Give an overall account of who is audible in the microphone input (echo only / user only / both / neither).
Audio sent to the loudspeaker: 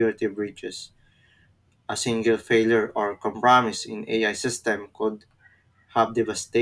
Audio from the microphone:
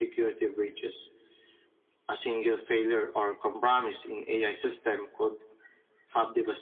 echo only